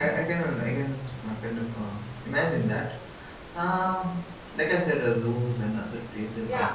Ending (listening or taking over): taking over